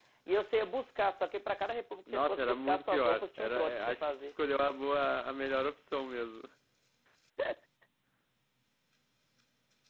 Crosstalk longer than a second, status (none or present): present